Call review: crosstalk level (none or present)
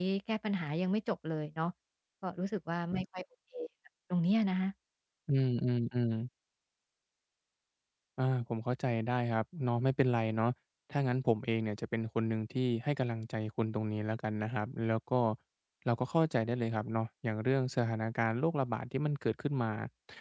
none